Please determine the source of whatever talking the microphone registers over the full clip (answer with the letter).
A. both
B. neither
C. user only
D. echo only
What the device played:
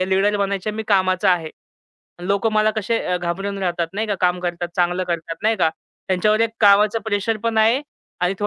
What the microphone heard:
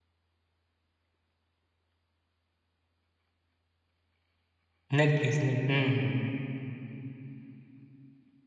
C